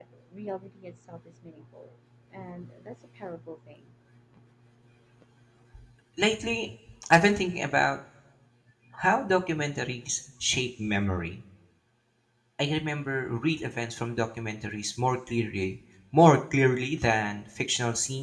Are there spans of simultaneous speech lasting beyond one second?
No

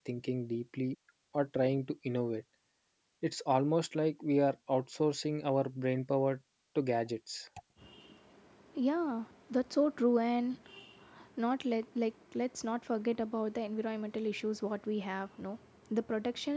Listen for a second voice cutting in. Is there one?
No

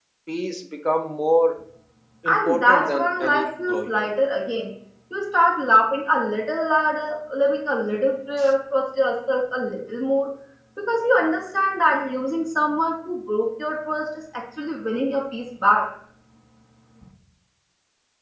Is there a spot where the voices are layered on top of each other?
Yes, from 2.3 s

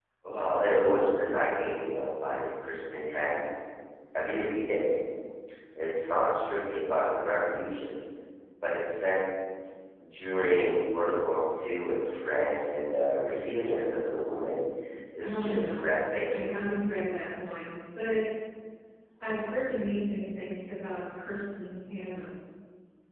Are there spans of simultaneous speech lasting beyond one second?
Yes, from 15.2 s

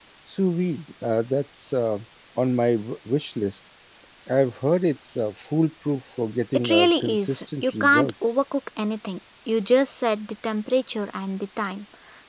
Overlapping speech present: Yes, from 6.5 s

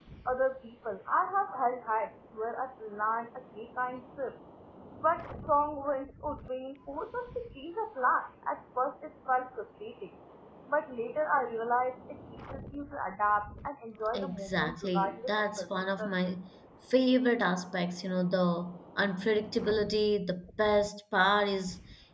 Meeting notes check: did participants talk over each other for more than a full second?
Yes, from 14.1 s

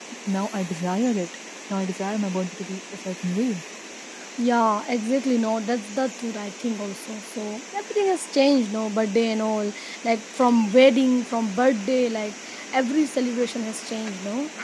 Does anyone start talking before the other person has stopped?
No

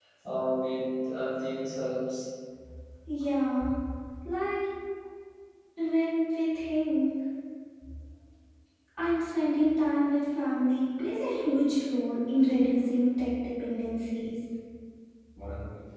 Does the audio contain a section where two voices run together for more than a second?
No

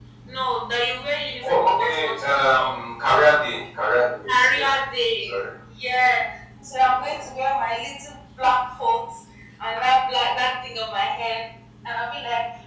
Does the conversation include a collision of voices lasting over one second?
Yes, from 1.5 s

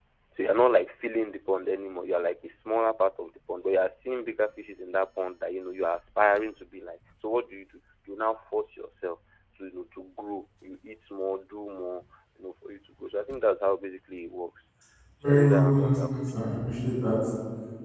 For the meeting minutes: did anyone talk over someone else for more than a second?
Yes, from 15.2 s

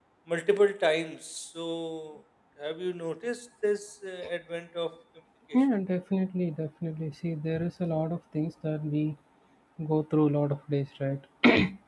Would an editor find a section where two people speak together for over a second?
No

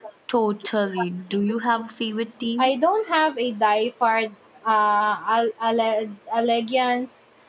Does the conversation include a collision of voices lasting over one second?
No

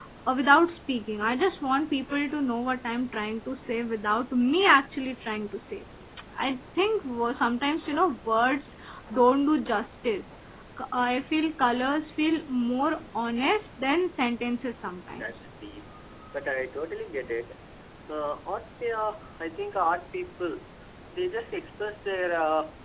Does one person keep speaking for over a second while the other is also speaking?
No

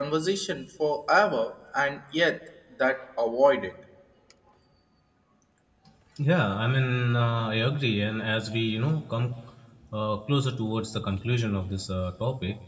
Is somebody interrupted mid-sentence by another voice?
No

